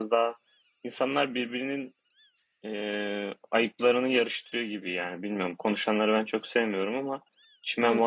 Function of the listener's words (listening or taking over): taking over